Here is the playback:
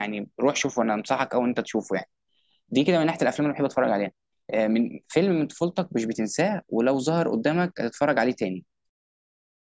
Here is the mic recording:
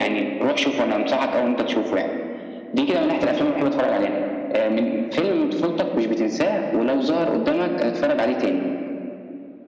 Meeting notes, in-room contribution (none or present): none